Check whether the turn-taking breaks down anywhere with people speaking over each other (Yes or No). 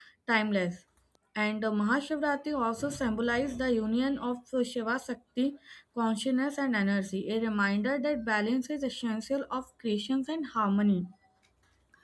No